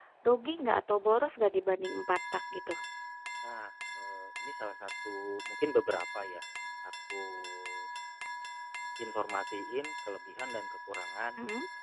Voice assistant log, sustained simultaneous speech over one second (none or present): none